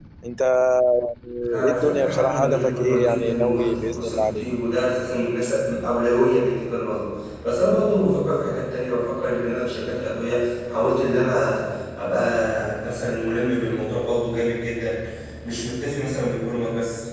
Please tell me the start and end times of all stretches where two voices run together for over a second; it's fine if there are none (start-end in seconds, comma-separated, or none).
1.5-4.5